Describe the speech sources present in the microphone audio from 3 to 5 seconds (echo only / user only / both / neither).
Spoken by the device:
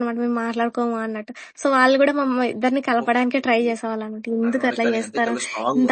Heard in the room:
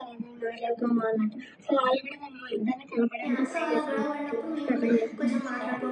both